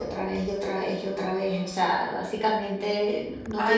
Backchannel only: No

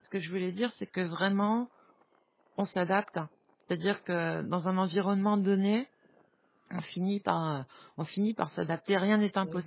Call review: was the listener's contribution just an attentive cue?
No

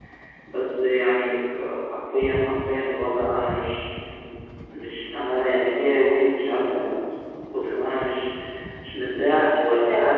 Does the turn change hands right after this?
No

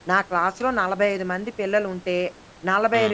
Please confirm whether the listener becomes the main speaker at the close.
No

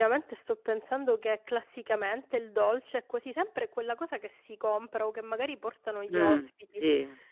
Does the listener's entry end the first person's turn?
Yes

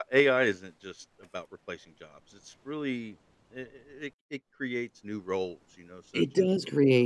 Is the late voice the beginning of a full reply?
Yes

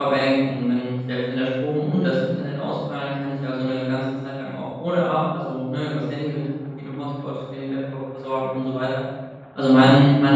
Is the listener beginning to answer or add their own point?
No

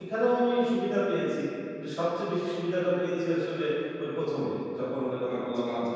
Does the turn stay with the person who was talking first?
No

